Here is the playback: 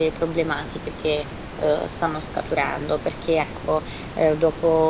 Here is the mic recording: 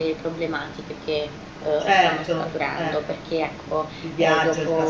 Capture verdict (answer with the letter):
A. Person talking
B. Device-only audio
A